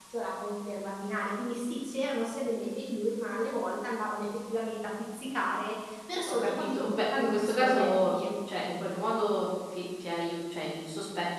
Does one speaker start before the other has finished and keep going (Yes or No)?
Yes